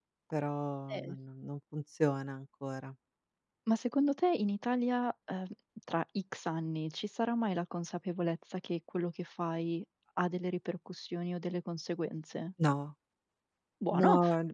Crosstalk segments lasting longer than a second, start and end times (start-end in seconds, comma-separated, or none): none